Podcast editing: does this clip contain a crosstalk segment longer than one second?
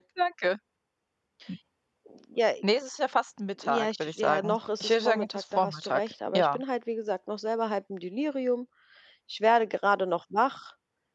Yes, from 3.6 s

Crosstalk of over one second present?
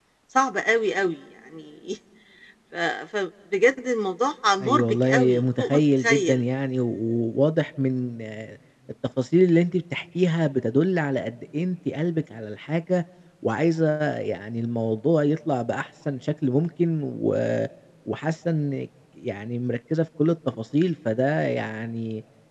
Yes, from 4.6 s

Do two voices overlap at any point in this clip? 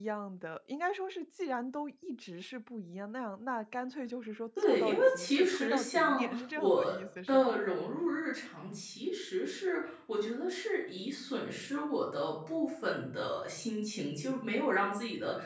Yes, from 4.6 s

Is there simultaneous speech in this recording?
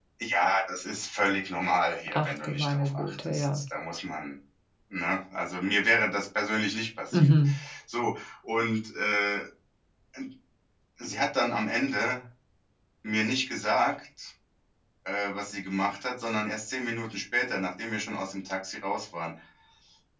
Yes, from 2.1 s

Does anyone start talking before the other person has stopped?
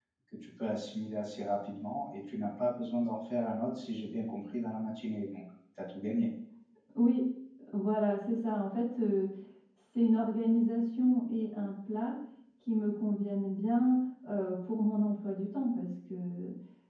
No

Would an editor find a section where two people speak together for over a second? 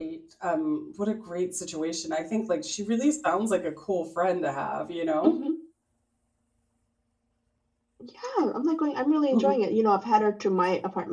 No

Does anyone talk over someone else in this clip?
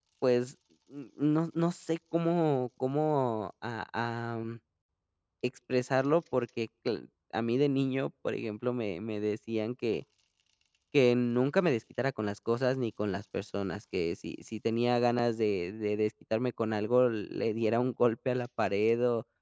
No

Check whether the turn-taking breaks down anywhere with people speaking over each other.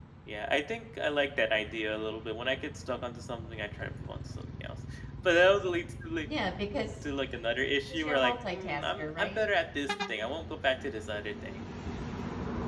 Yes, from 7.9 s

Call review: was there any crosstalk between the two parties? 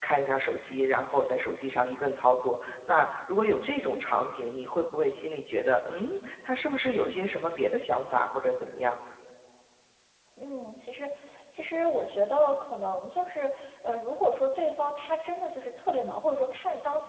No

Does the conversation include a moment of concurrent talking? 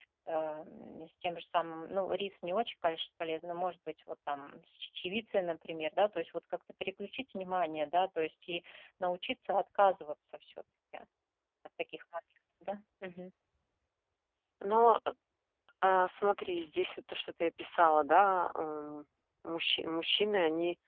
No

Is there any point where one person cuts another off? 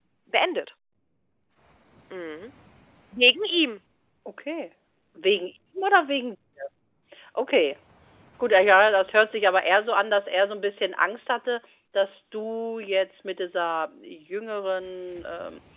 No

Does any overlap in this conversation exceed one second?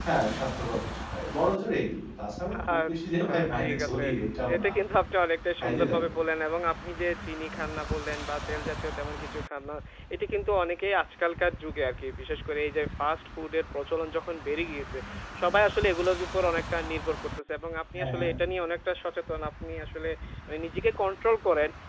Yes, from 2.7 s

